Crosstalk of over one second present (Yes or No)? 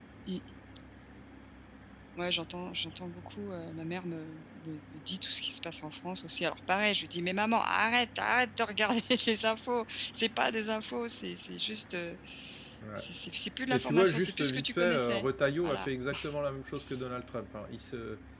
Yes